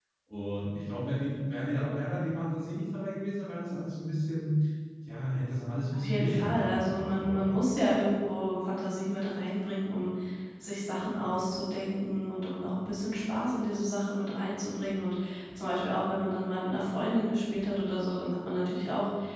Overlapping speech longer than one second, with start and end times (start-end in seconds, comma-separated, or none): 5.8-7.5